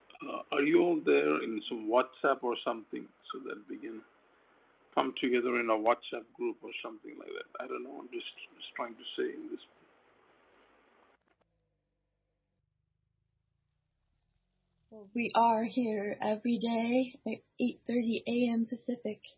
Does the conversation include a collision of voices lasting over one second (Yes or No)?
No